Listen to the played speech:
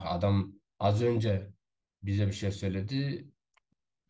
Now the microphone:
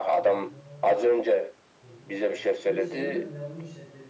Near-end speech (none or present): present